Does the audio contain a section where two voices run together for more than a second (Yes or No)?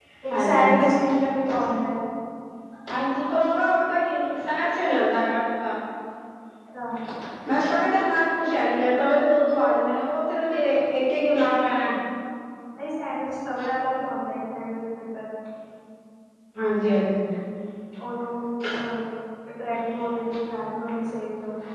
No